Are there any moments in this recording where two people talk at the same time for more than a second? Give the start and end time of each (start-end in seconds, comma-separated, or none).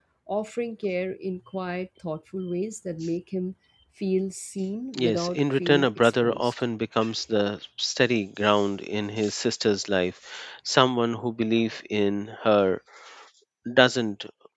5.0-6.5